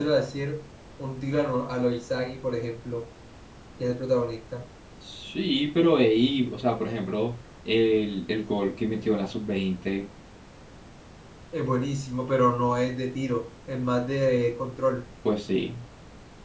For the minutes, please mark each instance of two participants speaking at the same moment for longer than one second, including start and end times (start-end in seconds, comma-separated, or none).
none